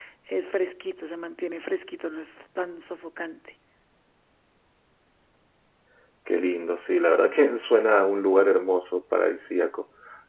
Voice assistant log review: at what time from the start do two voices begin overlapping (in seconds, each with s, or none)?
none